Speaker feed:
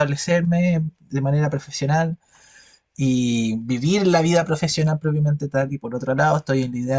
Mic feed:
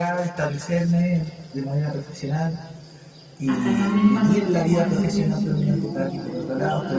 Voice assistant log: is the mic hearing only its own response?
No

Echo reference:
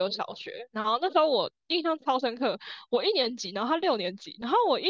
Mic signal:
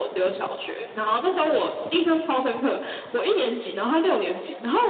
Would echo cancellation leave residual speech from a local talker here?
No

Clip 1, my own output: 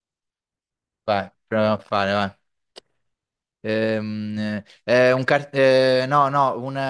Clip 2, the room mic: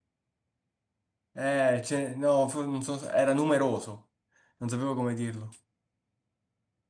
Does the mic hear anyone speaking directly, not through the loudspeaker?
Yes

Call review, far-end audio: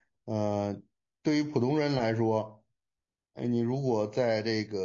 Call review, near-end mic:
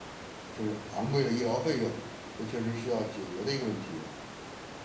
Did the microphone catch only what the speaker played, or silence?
No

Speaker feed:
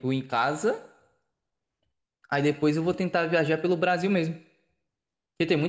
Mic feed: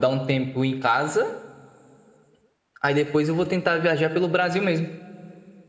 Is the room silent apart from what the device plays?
Yes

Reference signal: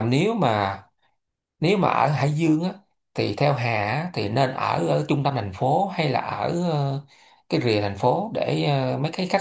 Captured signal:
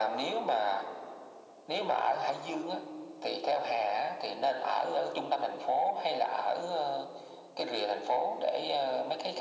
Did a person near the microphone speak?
No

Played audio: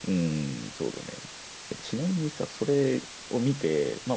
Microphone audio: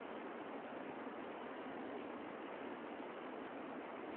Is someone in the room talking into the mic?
No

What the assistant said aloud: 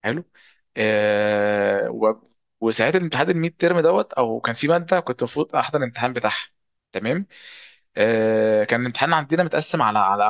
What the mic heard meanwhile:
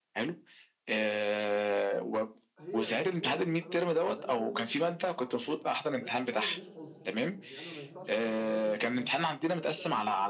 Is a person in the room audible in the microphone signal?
Yes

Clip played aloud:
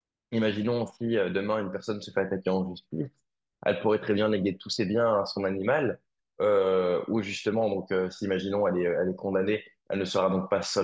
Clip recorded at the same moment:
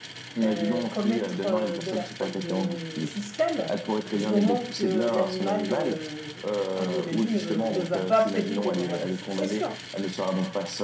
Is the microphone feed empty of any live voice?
No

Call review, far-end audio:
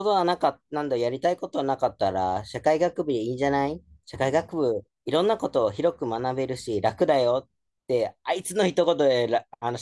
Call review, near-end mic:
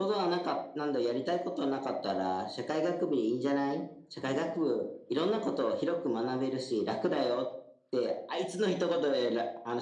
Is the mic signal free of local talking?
Yes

